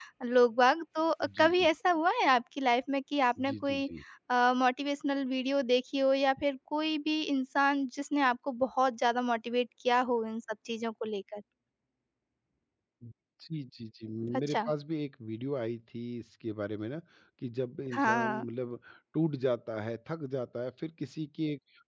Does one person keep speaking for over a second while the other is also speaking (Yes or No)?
No